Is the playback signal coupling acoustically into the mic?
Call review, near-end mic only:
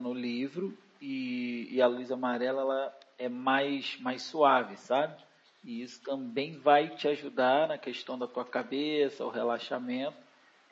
No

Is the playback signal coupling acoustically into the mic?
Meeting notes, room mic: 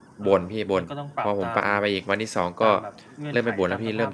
Yes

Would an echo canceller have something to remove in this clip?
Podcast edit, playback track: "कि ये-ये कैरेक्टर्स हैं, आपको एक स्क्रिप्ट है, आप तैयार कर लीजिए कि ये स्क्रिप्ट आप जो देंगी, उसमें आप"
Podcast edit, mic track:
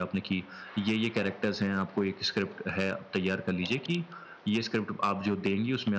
Yes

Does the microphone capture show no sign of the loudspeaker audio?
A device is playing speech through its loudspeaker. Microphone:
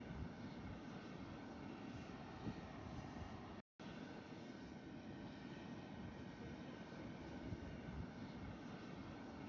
Yes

